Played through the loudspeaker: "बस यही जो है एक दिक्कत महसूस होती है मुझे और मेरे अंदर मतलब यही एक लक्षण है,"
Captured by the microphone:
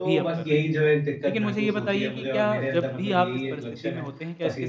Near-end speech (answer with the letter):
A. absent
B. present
B